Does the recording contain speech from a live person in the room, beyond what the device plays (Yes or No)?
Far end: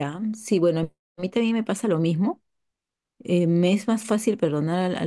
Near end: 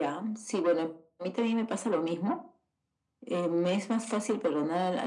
No